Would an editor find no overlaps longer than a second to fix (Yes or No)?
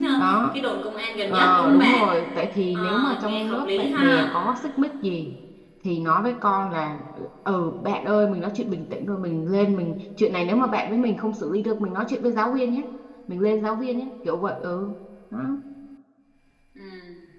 No